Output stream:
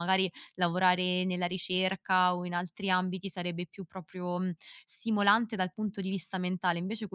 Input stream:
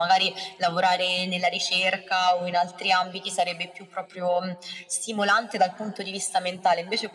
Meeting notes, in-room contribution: none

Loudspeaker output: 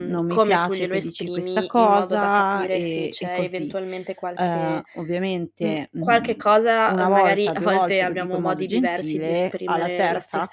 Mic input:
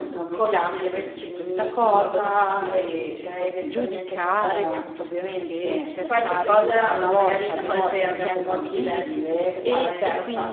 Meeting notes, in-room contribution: present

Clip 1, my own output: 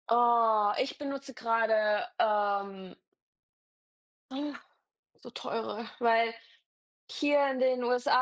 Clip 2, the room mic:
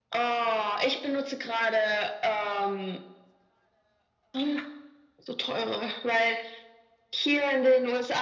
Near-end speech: none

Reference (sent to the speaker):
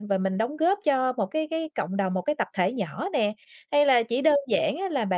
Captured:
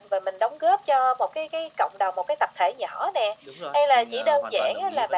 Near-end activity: present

